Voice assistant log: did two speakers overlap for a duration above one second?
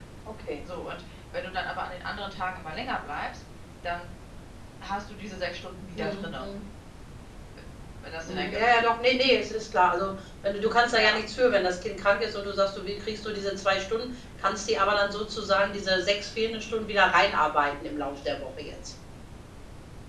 No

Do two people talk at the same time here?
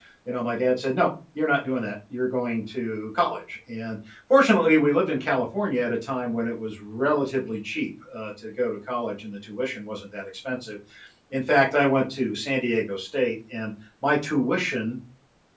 No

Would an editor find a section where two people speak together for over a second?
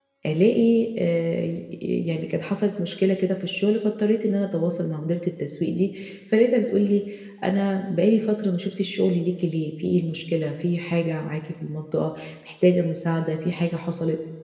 No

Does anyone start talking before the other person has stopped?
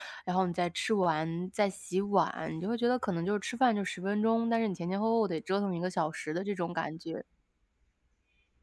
No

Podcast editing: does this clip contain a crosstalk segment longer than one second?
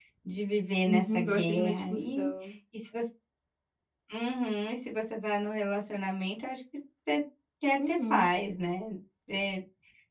Yes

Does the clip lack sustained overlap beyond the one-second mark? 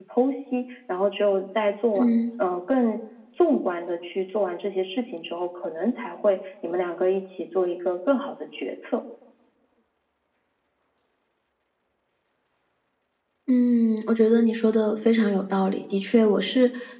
Yes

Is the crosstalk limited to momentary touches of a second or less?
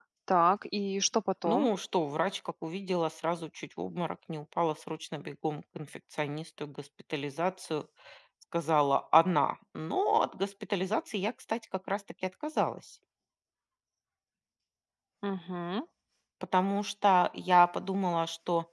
Yes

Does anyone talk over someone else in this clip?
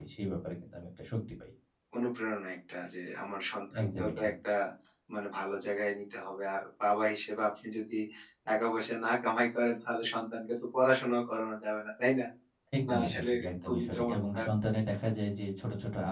Yes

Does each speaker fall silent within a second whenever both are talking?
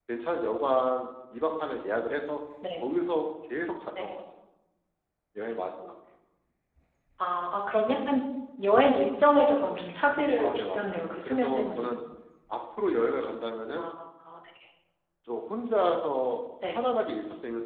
No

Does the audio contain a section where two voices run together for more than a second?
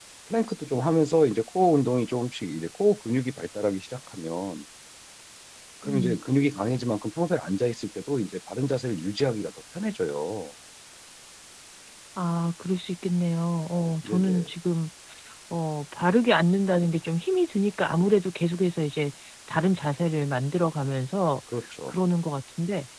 No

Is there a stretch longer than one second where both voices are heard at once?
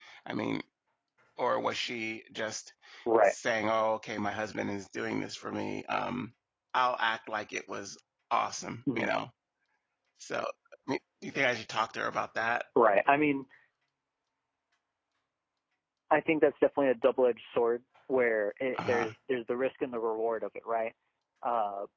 No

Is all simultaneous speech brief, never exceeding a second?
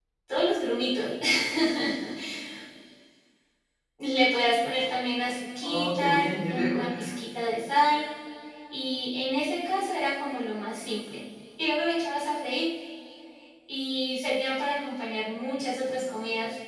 No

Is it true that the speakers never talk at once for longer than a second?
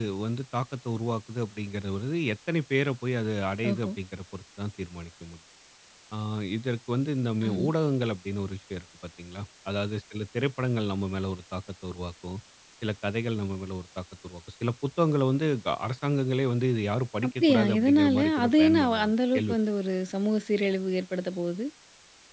No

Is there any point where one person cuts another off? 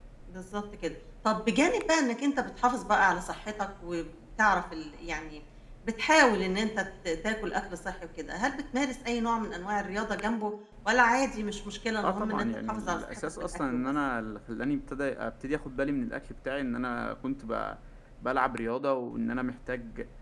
Yes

